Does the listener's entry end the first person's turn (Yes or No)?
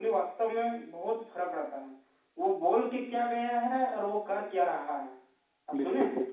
Yes